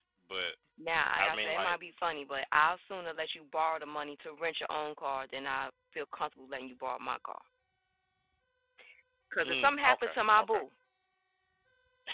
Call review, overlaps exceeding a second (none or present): present